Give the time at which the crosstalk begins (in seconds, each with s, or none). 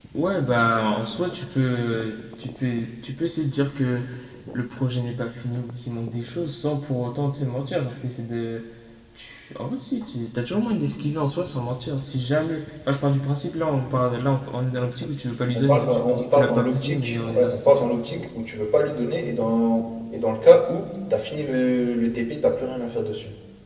15.5 s